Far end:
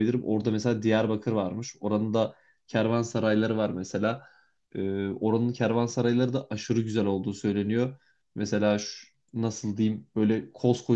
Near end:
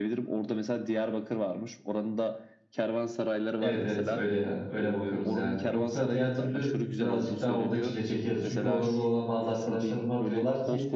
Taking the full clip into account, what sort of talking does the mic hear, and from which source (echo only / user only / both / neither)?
both